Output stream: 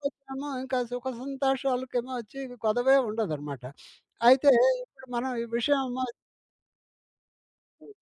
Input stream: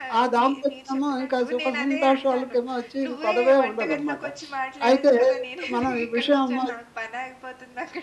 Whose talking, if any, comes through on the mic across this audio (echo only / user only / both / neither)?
both